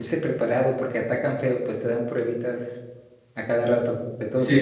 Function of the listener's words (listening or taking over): taking over